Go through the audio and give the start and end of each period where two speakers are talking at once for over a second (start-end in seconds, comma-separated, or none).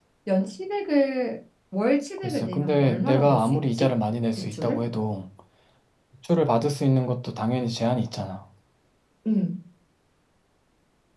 2.2-3.9